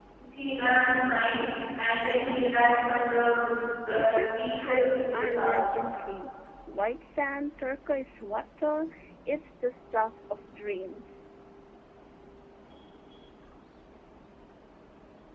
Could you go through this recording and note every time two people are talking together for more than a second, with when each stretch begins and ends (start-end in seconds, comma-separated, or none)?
3.7-5.6